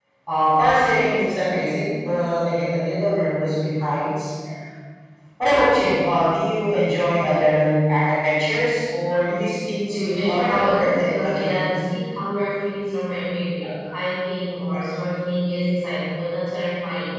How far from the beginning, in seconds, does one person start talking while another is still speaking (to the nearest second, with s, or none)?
10 s